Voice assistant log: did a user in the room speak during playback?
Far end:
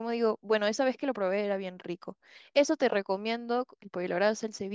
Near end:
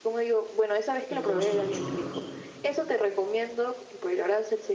Yes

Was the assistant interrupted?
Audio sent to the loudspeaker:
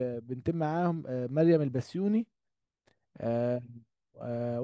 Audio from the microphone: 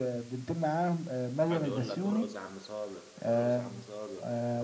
Yes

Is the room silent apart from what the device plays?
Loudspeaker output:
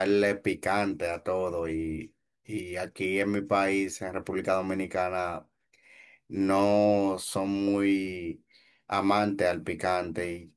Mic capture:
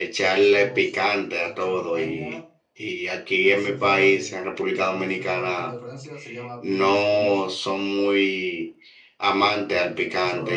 No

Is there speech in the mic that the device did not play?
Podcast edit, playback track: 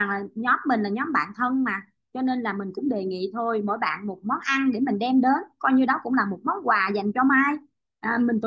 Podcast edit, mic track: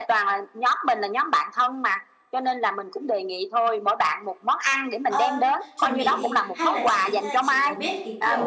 Yes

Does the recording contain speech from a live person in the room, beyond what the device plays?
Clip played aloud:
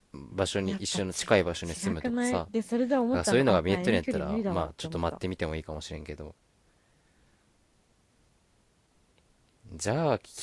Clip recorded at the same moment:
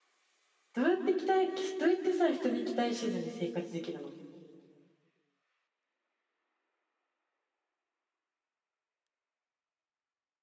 Yes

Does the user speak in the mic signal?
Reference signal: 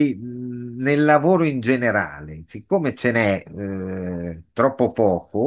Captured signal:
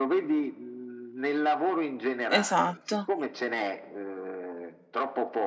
Yes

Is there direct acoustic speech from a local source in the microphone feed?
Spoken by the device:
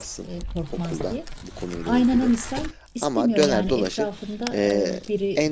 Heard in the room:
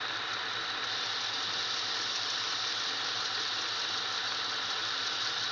No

